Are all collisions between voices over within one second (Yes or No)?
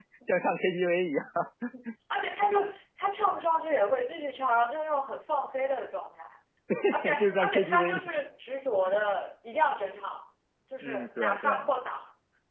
No